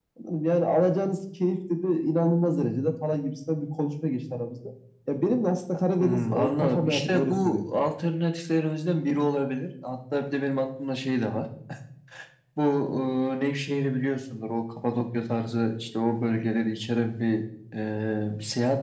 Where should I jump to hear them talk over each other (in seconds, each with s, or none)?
6.0 s